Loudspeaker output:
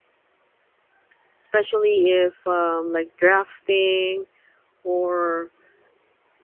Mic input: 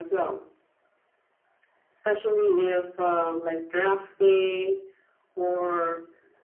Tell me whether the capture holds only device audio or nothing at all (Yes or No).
Yes